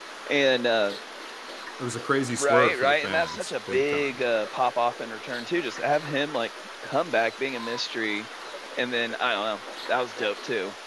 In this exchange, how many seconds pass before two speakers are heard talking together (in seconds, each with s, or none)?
2.4 s